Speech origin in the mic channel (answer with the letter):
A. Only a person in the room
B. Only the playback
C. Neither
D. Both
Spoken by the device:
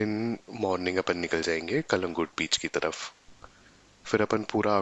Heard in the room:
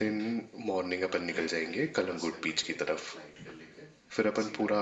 D